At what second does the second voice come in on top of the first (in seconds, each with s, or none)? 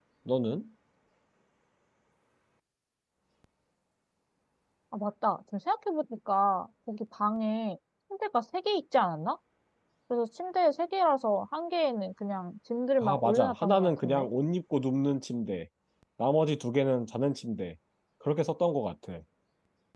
13.0 s